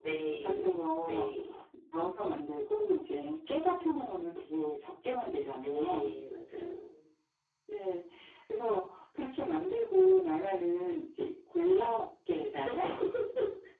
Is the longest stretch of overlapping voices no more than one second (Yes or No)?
Yes